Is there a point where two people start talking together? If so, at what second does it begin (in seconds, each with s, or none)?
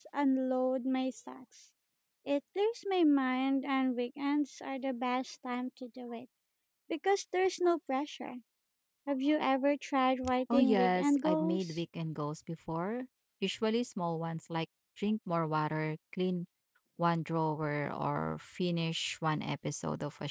10.5 s